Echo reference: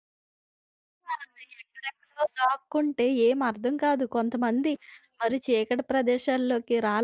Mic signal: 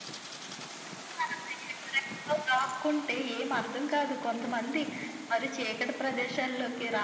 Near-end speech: none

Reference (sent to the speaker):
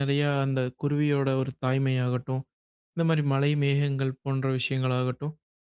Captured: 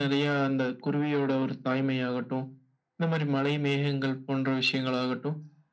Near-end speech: none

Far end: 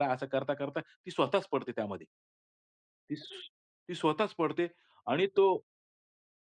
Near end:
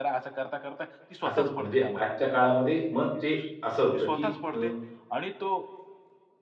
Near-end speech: present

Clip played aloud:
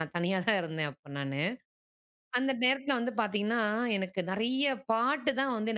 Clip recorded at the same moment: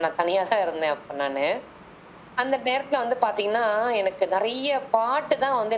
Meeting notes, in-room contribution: none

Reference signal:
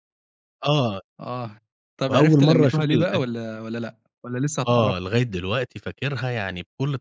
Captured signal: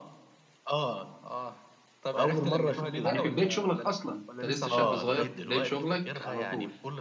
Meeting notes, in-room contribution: present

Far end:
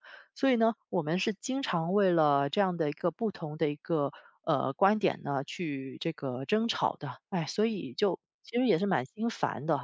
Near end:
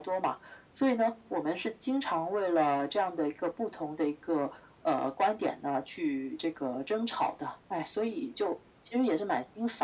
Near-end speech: none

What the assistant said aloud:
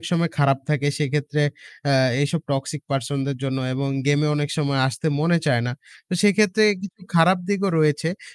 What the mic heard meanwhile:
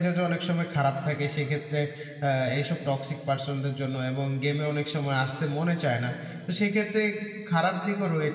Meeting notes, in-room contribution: none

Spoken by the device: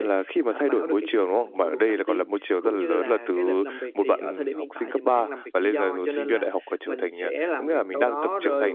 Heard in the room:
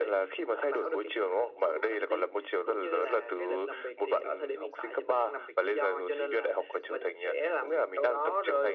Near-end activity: none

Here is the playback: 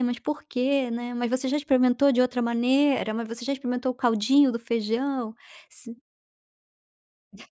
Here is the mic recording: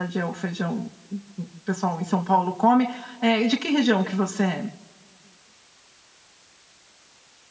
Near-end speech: present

